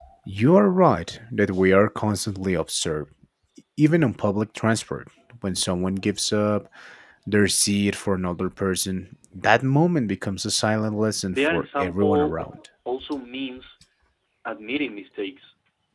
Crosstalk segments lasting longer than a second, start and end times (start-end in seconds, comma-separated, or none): 11.3-12.6